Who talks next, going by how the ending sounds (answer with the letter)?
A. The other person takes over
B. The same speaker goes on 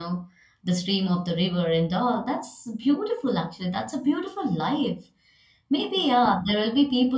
B